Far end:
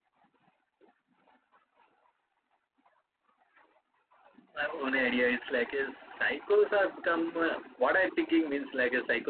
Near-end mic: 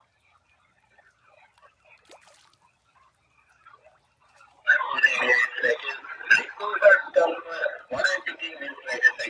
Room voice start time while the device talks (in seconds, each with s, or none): none